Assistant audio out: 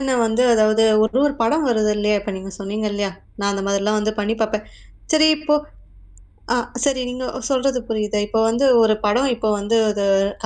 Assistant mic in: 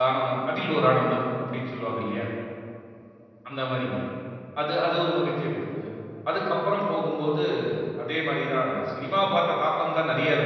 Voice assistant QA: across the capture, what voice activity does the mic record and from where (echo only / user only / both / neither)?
user only